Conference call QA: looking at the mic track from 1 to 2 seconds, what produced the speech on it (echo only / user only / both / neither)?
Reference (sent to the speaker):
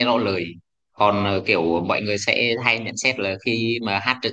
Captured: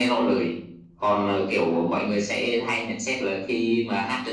echo only